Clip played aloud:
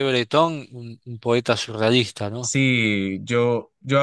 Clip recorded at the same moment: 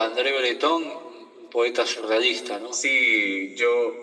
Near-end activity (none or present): none